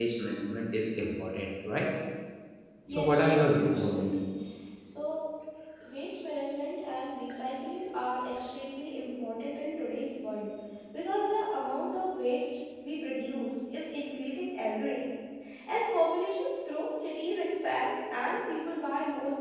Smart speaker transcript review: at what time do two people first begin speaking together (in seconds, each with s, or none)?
2.9 s